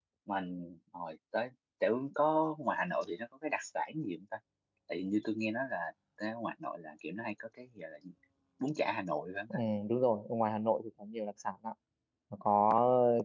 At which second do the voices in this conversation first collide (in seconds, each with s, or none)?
none